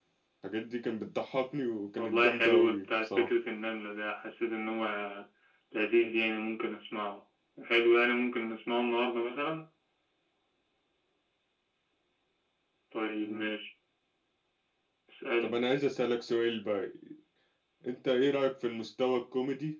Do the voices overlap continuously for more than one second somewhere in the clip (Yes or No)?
Yes